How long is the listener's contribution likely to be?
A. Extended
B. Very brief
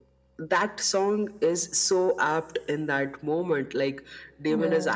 B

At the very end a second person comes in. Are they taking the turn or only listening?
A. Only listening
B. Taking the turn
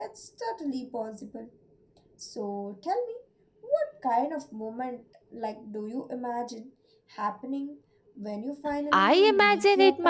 B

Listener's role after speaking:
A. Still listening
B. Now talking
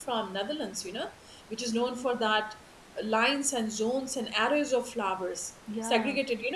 A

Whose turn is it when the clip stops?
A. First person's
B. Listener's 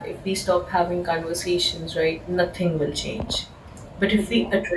A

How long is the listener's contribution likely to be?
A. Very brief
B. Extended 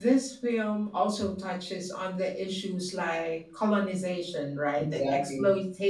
A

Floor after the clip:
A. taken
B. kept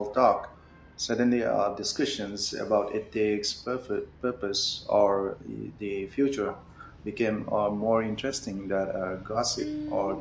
A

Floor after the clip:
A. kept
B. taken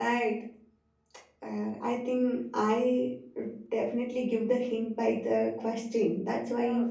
B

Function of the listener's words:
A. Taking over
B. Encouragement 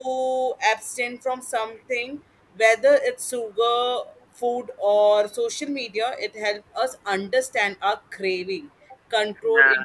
B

